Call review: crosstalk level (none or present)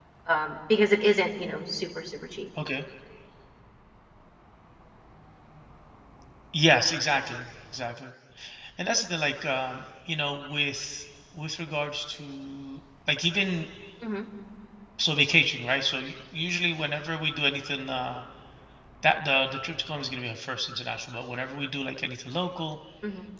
none